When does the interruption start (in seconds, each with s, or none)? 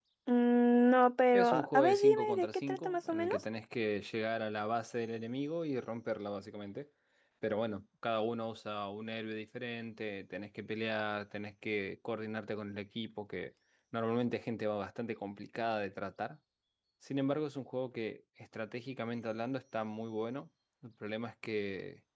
1.3 s